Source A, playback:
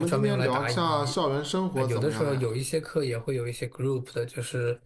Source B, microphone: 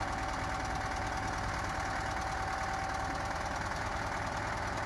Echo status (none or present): none